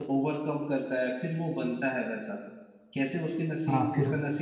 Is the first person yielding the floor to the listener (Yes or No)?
No